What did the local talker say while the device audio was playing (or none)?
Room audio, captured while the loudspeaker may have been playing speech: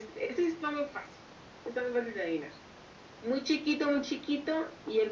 none